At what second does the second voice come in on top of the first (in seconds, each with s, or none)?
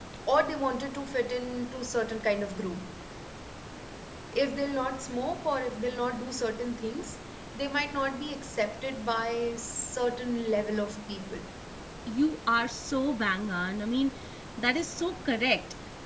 none